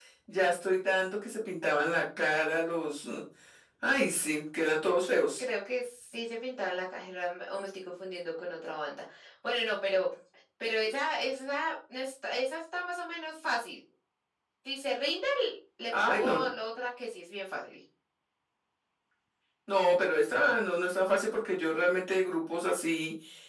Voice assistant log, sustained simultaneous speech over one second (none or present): none